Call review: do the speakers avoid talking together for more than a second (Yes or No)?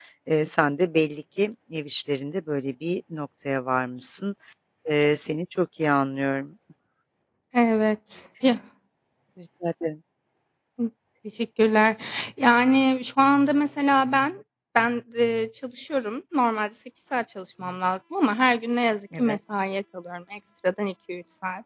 Yes